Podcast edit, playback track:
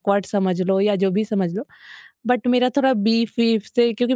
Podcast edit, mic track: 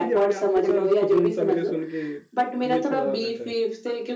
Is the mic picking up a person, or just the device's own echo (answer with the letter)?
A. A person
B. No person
A